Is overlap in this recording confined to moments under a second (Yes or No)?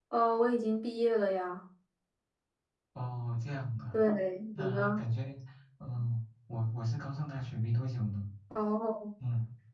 Yes